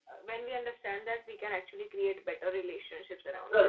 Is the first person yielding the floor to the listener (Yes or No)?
Yes